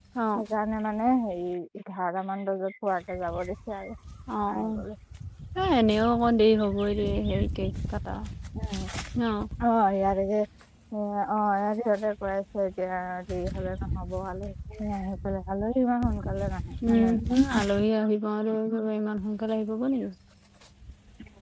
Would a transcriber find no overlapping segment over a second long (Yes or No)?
Yes